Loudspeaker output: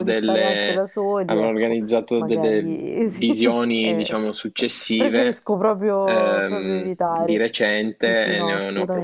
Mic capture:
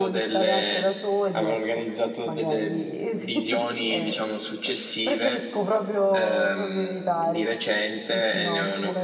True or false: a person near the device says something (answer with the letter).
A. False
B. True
A